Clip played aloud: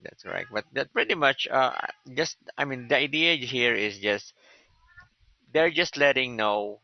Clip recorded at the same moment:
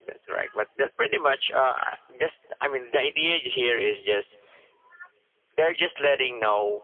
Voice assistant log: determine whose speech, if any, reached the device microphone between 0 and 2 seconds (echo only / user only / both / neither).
echo only